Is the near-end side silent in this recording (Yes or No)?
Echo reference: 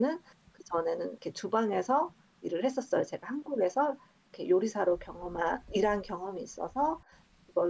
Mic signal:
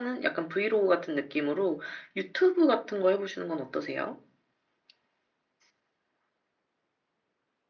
No